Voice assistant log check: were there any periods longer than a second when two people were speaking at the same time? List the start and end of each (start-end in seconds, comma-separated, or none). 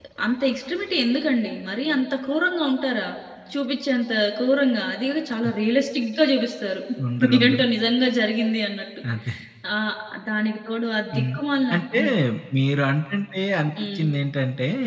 none